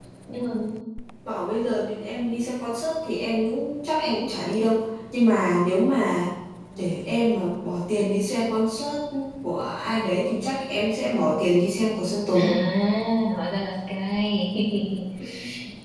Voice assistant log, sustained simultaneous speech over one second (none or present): none